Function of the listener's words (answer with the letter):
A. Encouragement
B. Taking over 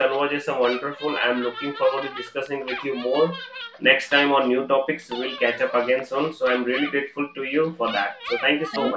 B